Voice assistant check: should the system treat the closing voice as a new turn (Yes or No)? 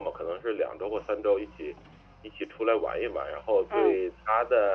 No